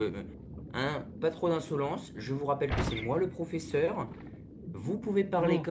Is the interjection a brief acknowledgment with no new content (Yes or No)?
Yes